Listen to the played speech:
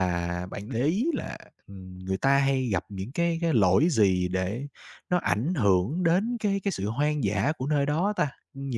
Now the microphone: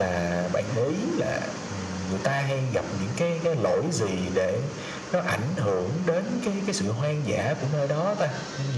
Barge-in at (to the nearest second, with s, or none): none